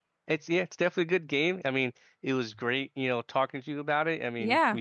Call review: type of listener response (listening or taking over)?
listening